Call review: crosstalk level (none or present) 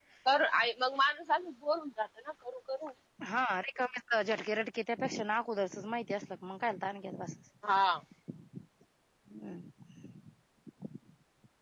none